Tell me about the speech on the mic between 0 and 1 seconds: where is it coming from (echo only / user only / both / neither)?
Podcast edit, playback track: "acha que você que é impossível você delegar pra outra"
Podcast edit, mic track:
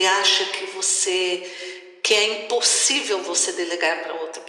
echo only